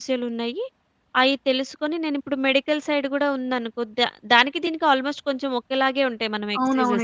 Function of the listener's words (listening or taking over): taking over